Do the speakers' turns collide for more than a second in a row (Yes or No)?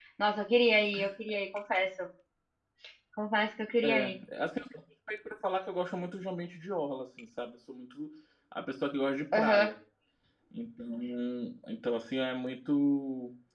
No